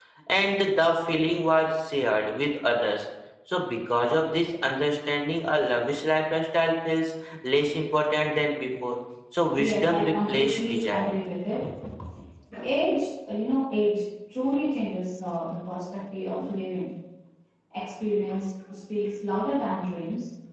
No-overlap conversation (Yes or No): No